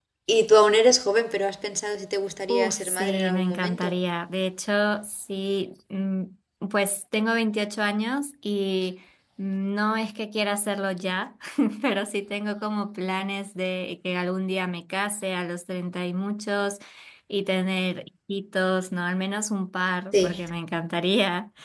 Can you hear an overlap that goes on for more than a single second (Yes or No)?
Yes